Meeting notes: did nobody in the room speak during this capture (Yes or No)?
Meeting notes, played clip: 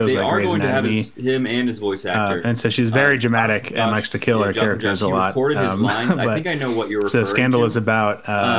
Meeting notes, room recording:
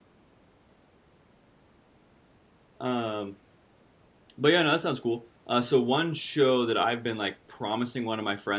No